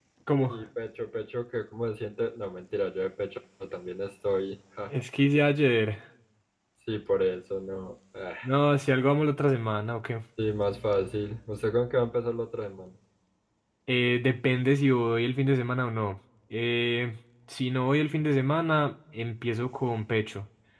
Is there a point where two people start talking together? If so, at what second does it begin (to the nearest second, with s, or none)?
none